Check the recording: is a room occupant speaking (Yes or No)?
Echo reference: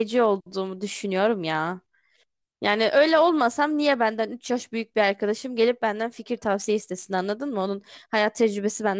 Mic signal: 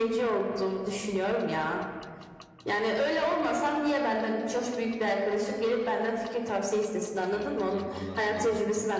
Yes